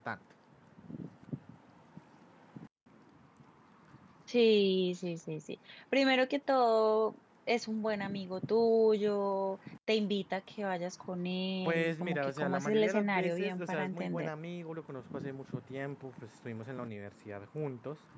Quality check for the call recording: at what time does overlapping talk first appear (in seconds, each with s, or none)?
11.6 s